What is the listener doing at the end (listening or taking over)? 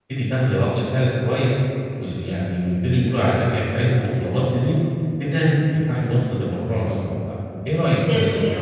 taking over